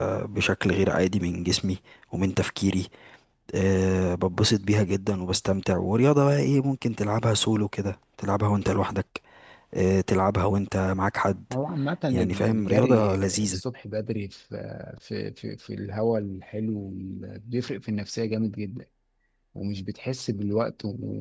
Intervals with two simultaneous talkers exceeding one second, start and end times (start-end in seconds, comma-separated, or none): 12.1-13.6